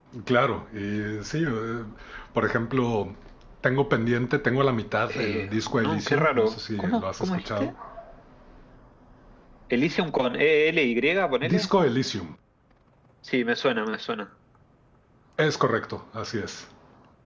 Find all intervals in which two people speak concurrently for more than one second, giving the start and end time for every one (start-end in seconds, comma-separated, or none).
5.1-7.7